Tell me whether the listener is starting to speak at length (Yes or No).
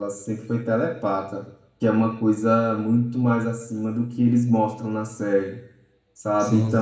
No